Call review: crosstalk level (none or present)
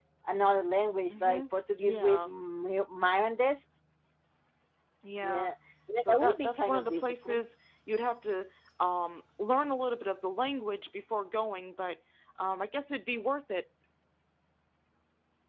present